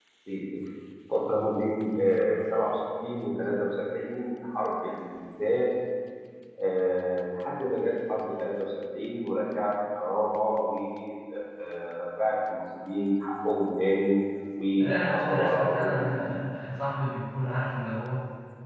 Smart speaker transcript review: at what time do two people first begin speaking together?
14.8 s

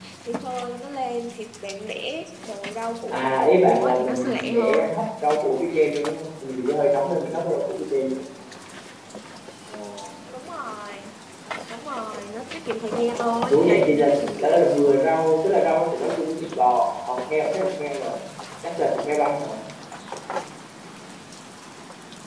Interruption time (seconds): 3.1 s

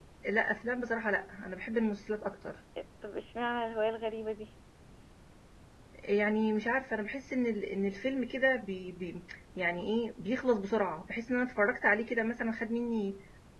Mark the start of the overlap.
none

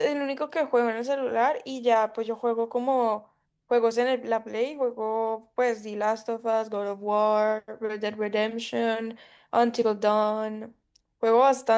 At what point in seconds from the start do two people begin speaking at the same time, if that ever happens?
none

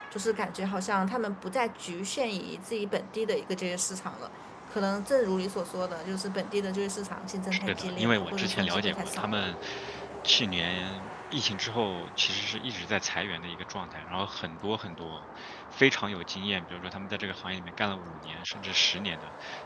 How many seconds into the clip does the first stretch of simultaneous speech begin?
7.5 s

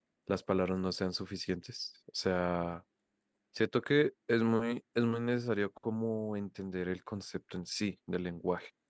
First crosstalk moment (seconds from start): none

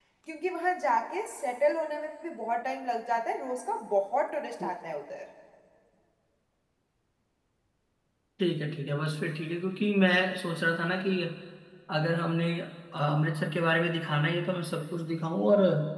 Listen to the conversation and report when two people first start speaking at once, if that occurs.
none

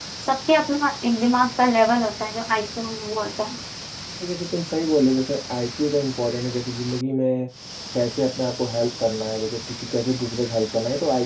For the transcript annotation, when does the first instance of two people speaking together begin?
none

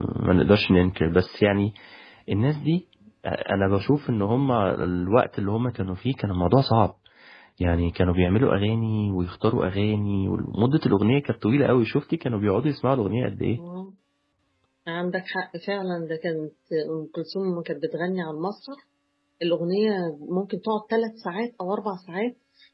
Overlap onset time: none

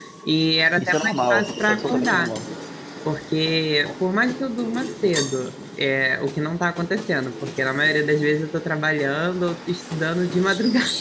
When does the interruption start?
0.8 s

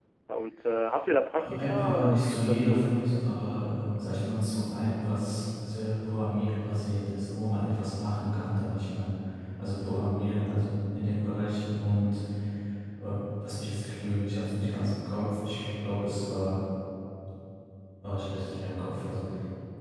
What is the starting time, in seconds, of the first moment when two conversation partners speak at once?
1.4 s

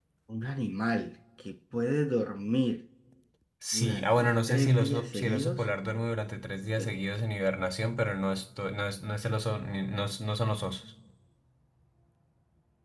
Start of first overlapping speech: 3.7 s

